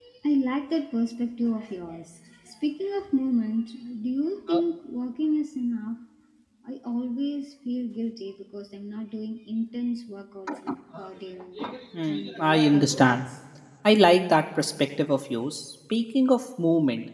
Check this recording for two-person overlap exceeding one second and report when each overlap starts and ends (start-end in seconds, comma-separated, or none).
12.1-13.3